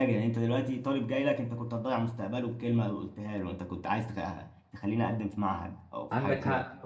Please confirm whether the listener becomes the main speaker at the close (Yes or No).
Yes